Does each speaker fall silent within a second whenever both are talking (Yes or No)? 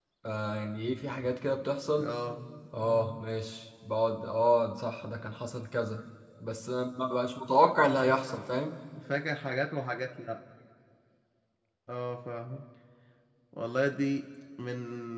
Yes